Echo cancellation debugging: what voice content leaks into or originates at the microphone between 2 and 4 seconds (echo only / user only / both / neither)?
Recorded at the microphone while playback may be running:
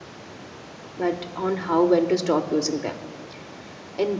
user only